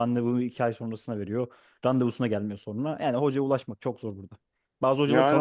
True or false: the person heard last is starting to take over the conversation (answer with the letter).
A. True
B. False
A